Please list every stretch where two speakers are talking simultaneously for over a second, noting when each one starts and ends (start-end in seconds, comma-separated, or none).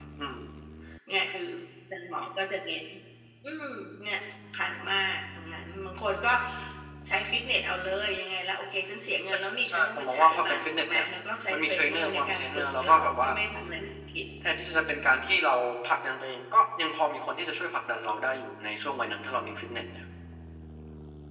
9.3-11.0, 11.5-13.3